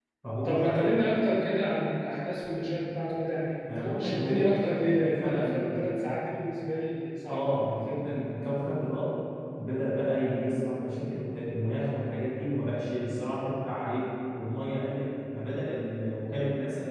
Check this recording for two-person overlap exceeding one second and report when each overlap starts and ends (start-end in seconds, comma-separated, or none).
4.0-5.9